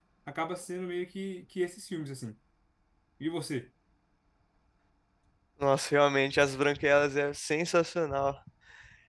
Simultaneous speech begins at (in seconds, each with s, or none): none